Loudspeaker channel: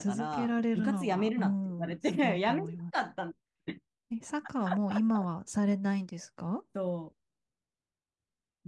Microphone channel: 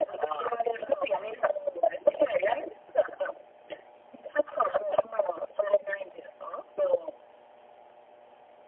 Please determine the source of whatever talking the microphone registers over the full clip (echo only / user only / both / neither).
echo only